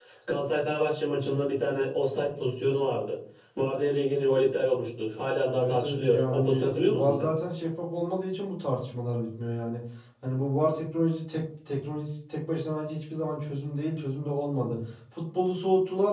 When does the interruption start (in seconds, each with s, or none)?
5.5 s